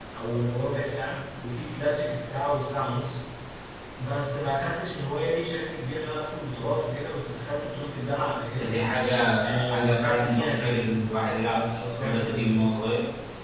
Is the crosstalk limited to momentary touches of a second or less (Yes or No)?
No